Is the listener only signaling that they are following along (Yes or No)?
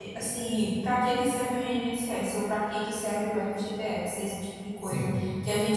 Yes